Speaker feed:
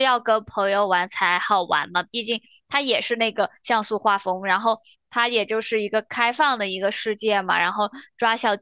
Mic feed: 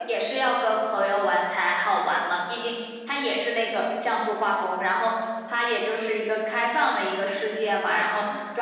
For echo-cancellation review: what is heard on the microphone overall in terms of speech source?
echo only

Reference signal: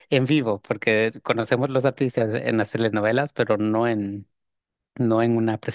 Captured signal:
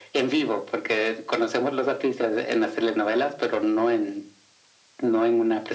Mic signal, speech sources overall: echo only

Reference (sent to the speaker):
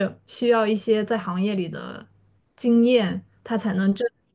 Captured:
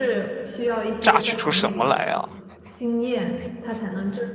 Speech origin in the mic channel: both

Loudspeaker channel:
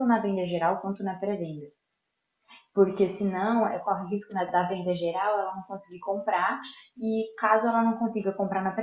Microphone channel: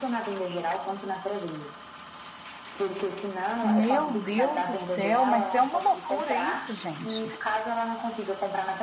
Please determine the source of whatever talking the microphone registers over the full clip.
both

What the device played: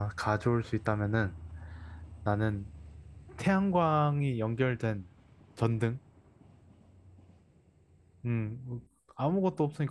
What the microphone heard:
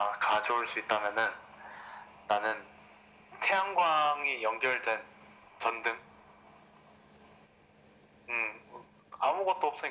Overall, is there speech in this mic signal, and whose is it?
echo only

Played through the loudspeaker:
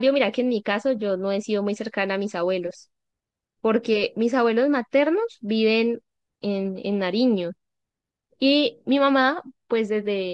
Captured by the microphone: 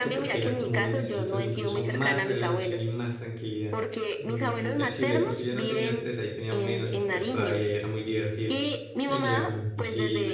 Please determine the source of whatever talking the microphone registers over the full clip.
both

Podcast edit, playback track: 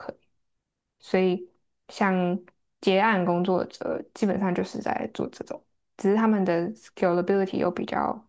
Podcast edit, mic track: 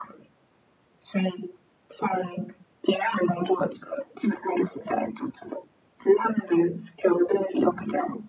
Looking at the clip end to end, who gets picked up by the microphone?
echo only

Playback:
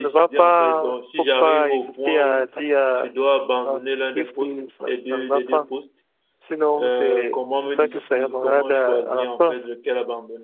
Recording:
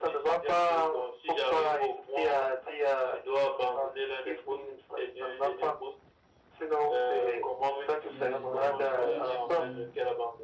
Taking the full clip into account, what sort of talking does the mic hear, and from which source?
both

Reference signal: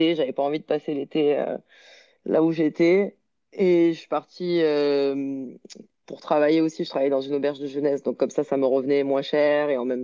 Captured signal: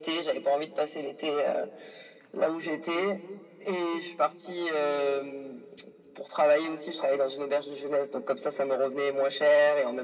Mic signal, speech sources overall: echo only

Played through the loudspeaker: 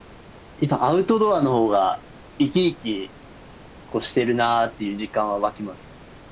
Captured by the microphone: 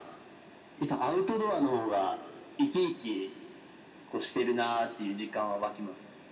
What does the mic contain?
echo only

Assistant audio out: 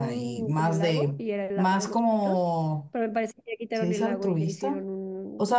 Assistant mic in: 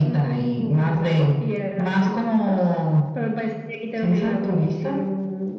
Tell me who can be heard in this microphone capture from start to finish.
echo only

